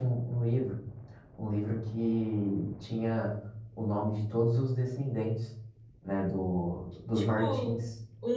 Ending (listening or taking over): taking over